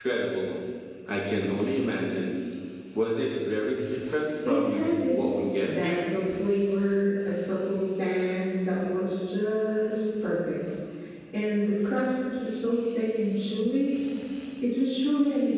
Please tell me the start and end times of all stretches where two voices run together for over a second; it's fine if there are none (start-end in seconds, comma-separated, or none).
4.5-5.9